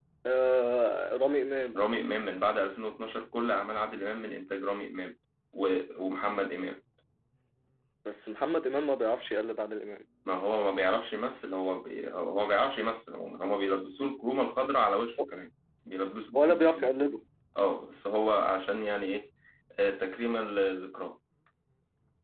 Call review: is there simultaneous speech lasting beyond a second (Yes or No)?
No